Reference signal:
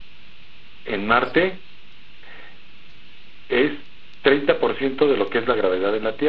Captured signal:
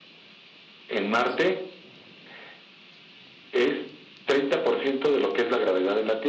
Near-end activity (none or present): none